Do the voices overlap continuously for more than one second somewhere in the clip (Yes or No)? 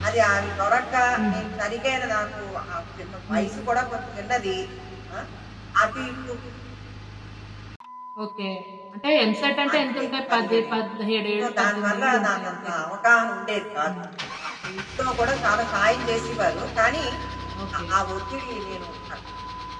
Yes